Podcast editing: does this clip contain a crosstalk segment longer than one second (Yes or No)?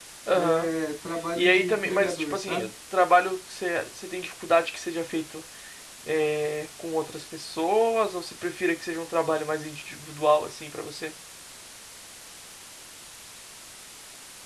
Yes